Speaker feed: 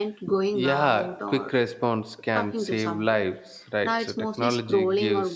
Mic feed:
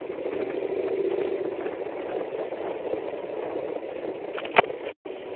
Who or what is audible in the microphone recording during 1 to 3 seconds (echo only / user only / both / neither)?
neither